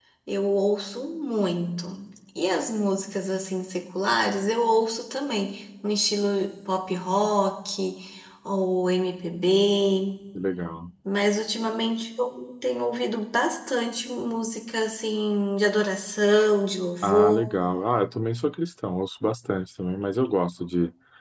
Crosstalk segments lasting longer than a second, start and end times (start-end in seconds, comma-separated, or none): none